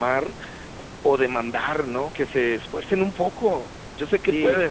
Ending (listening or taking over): taking over